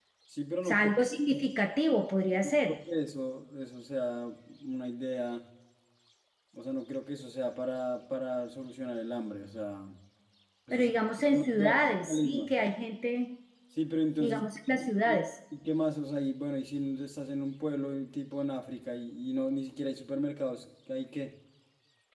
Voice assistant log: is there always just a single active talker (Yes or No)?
No